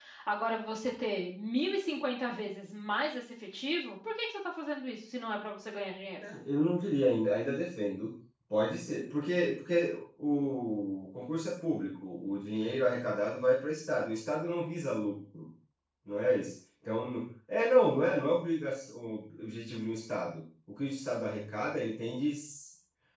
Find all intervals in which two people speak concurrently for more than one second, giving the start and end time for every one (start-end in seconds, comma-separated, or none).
none